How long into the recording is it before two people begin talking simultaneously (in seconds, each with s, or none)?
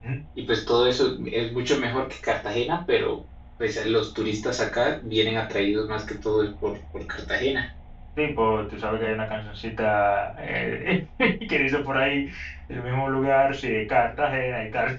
none